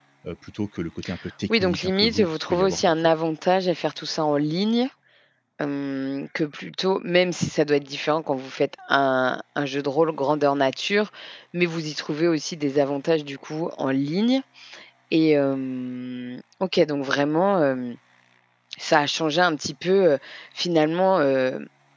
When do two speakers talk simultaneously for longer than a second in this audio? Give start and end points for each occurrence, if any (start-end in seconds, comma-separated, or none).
1.5-3.1